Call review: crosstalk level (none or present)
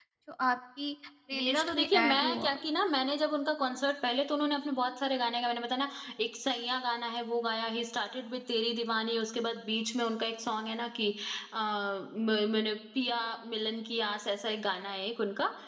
present